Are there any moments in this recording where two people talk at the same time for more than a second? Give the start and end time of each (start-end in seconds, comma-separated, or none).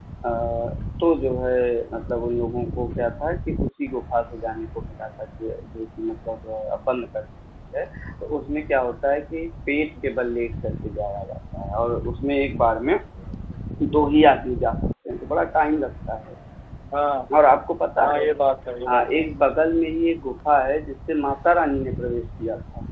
none